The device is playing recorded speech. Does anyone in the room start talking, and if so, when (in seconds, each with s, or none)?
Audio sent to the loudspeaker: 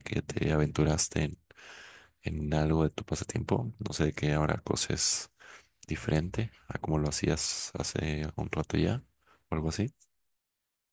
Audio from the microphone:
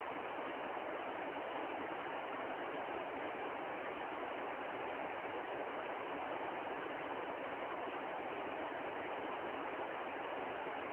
none